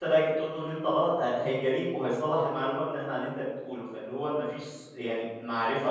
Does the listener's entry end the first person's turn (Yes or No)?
Yes